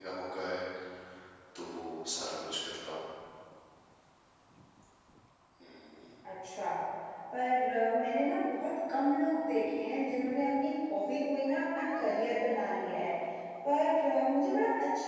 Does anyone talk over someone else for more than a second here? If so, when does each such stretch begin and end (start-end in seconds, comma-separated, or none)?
none